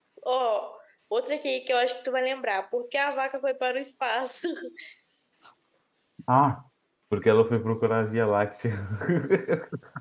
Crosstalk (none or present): none